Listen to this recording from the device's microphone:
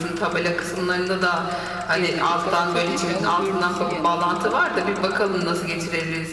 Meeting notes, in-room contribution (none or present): present